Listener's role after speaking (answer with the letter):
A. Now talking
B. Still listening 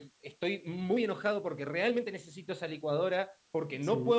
B